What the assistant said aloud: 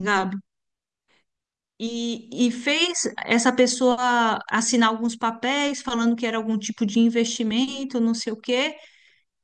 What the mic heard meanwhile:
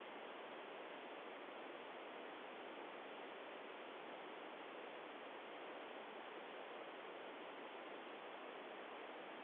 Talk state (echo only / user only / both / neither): neither